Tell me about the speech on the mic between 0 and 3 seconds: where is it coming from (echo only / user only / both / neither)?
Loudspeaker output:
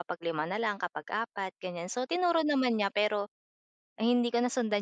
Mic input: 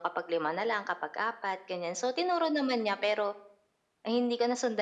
echo only